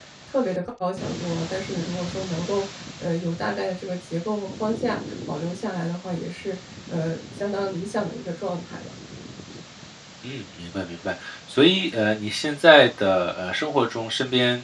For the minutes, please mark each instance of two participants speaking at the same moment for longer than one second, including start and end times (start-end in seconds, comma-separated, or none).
none